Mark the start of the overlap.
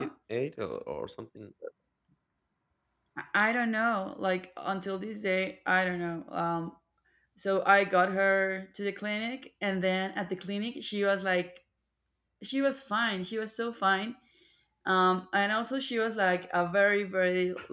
none

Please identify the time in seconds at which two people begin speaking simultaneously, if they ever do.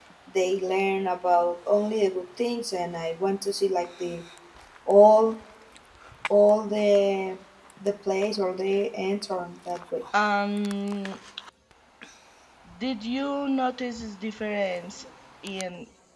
none

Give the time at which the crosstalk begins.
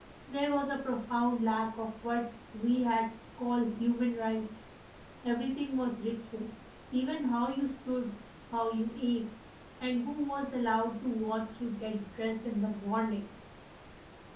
none

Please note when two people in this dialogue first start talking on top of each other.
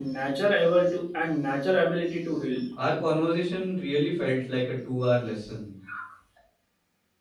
none

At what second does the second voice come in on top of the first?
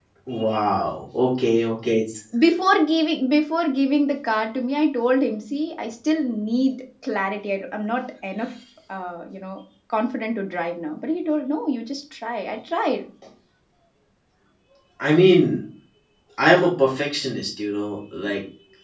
none

